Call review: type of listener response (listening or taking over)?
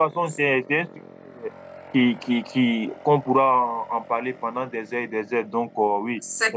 listening